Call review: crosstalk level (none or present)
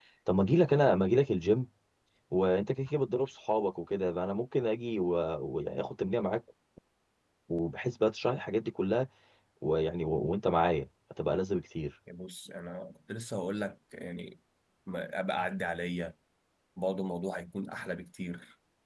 none